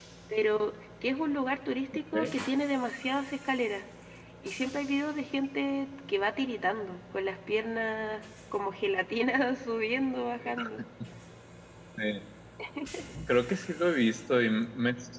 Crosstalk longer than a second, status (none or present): none